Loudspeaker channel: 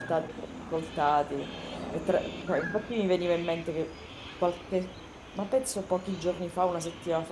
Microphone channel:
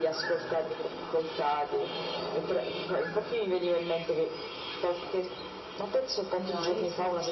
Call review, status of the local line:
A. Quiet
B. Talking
B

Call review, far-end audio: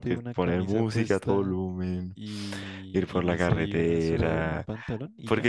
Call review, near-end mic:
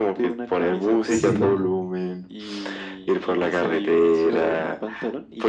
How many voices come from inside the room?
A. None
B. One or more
B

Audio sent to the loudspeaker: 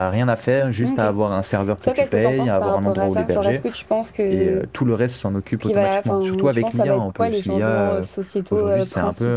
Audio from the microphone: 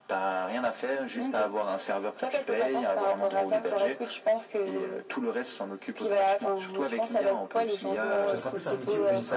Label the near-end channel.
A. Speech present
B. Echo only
A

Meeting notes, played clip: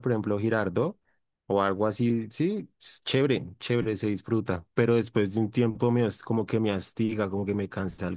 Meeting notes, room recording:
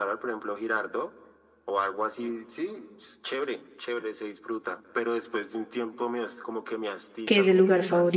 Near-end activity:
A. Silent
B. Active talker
B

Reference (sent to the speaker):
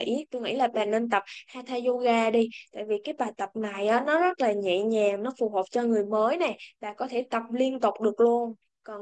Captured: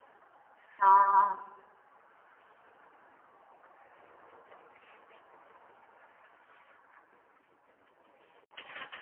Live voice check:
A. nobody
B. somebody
B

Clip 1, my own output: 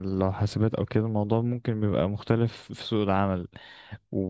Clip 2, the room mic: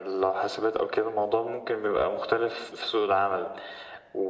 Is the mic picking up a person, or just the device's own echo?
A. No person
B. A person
A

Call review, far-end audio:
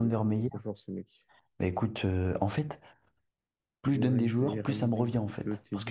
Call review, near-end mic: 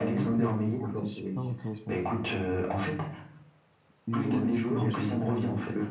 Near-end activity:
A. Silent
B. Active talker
B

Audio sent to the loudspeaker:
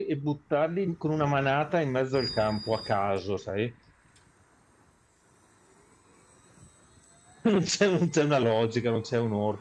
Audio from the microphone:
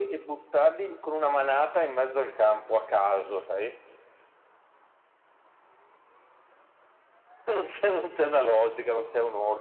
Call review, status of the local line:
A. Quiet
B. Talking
A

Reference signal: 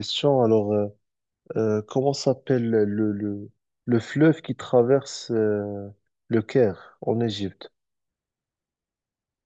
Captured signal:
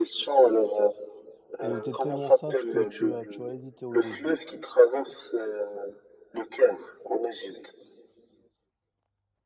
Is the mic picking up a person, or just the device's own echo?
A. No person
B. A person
B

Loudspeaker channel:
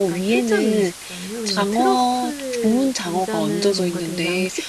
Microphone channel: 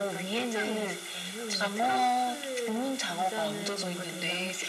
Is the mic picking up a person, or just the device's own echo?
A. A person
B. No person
B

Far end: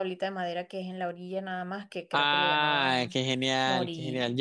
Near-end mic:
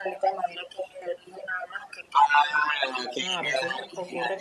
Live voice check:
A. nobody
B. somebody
B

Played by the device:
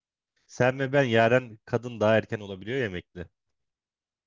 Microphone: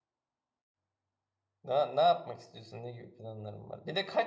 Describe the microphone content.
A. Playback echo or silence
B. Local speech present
B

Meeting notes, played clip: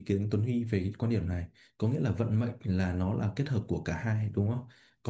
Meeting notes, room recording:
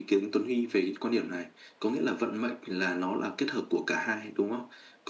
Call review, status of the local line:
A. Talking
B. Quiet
B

